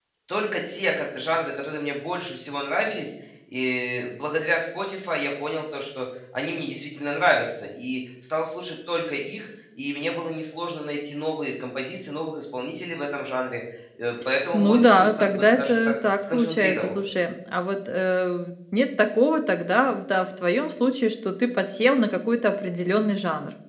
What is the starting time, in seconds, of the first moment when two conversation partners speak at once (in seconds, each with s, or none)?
14.5 s